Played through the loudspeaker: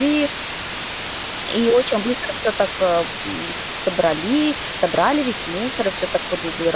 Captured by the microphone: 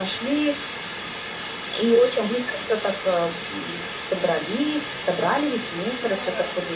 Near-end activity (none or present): present